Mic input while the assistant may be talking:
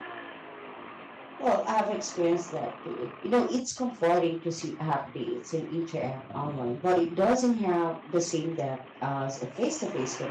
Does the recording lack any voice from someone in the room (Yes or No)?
No